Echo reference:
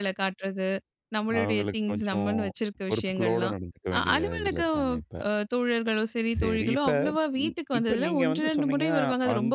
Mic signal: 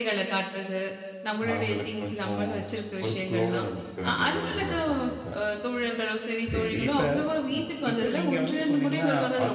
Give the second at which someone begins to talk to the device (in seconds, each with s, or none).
none